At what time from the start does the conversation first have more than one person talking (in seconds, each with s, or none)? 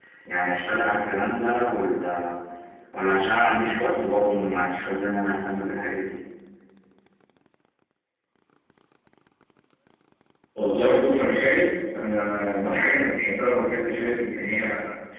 none